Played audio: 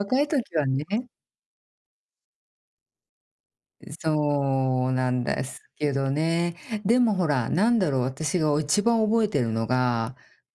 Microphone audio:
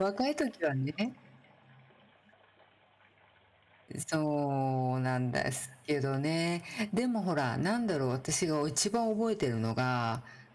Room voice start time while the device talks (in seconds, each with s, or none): none